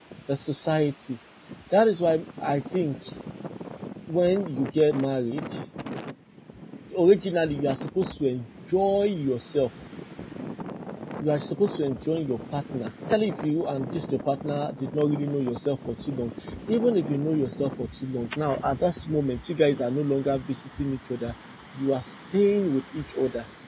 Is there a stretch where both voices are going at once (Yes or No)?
No